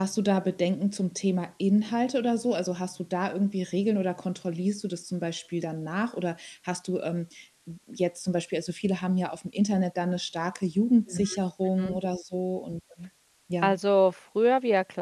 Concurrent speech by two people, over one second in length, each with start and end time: none

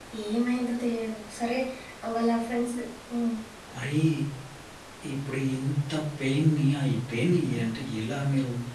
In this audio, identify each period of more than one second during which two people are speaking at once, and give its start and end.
none

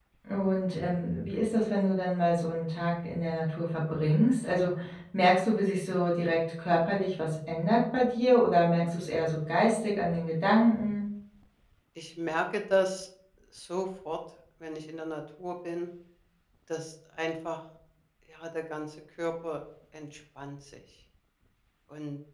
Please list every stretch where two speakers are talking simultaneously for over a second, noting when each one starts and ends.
none

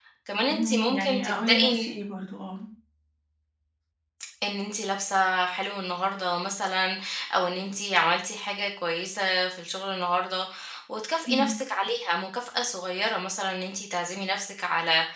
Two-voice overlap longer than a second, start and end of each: 0.5-1.9

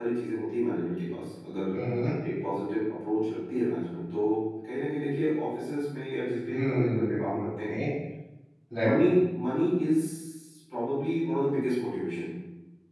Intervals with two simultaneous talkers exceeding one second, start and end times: 6.5-7.8

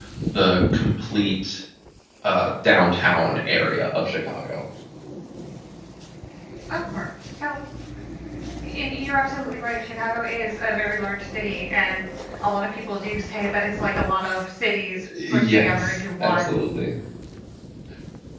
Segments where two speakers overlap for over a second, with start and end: 15.3-16.6

